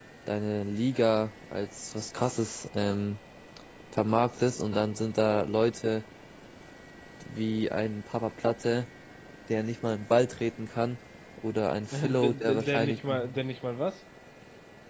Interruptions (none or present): present